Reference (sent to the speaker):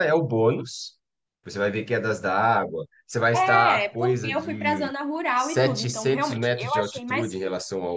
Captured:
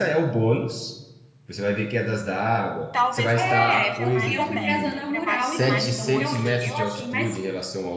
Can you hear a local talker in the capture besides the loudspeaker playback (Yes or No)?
Yes